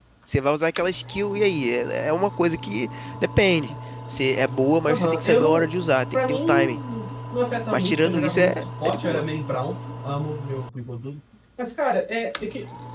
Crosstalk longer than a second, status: present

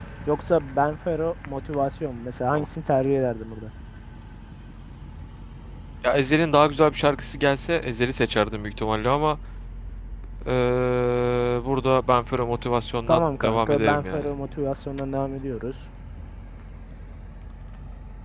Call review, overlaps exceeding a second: present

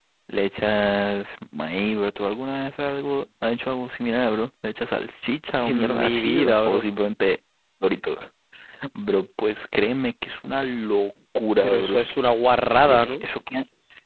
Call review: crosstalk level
present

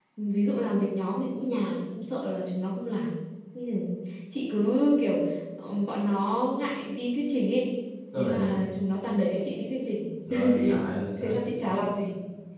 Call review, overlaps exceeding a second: none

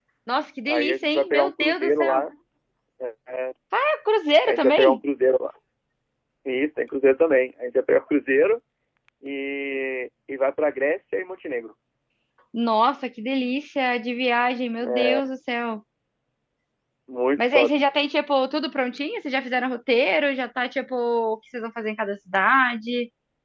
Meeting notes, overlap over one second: present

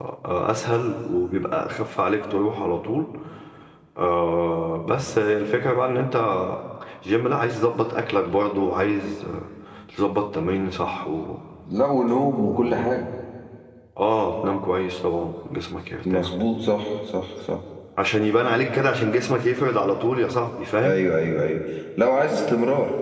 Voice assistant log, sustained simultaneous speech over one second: none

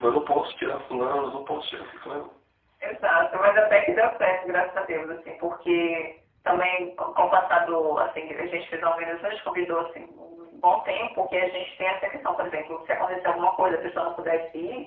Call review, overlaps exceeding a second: none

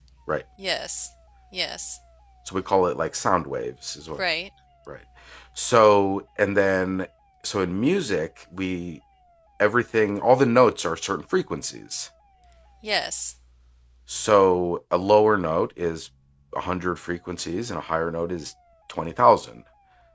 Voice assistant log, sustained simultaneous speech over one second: none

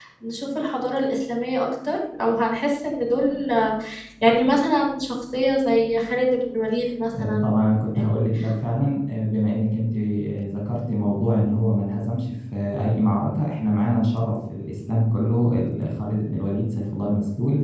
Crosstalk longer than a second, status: none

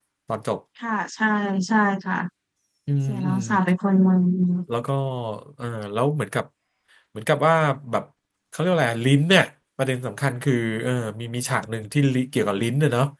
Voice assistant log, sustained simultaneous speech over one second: none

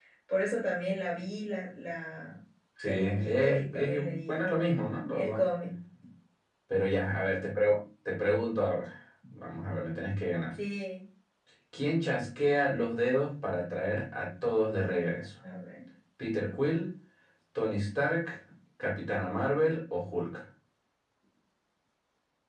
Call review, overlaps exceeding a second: present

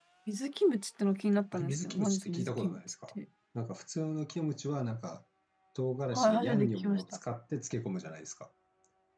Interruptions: present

